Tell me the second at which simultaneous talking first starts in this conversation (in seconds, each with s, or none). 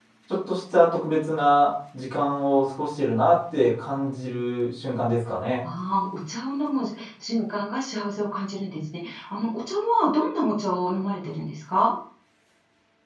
none